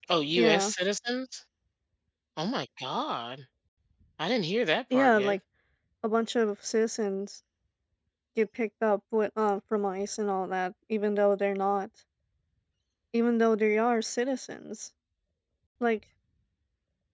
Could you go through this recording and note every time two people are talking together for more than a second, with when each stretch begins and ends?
none

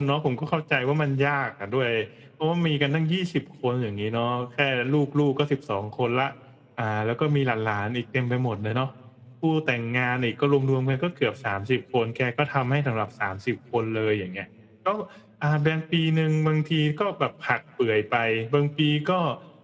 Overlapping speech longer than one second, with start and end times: none

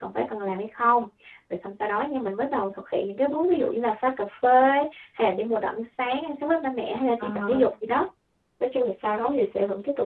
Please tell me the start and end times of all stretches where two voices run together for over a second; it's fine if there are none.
none

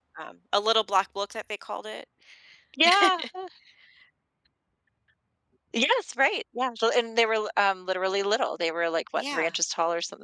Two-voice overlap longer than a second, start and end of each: none

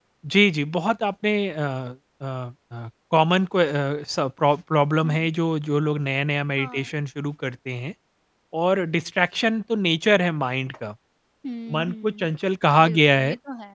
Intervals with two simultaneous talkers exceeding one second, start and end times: none

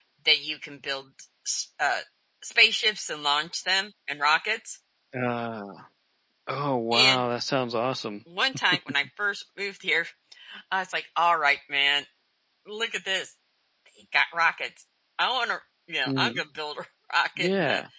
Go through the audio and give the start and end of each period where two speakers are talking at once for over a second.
none

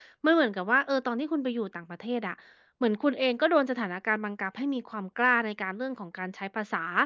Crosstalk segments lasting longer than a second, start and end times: none

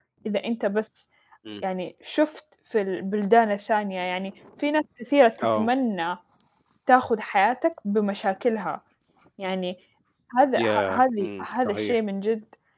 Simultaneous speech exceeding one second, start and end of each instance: 10.6-12.0

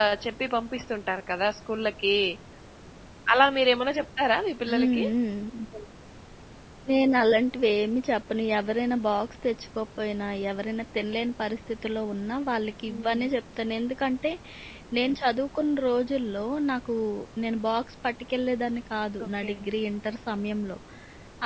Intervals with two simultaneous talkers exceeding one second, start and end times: none

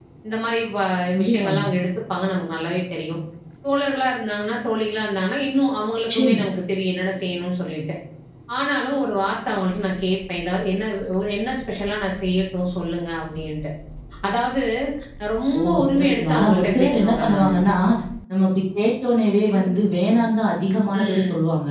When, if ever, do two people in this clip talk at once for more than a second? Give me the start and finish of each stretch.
15.6-17.5

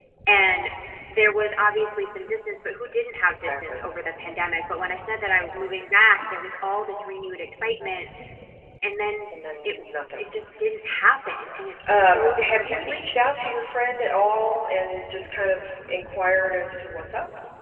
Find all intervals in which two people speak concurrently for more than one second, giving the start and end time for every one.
11.9-13.1

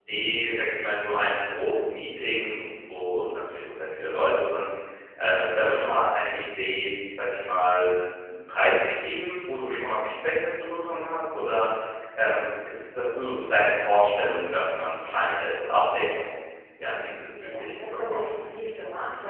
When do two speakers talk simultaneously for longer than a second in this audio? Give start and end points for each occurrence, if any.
17.0-18.4

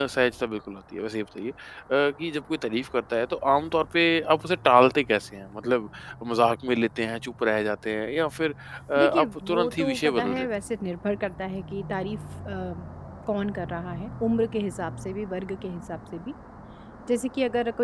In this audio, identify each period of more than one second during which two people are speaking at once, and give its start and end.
9.0-10.5

